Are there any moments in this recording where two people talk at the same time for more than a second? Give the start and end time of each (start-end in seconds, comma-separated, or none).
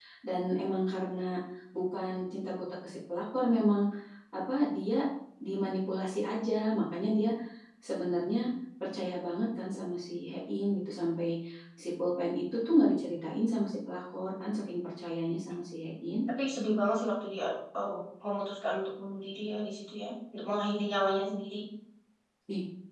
none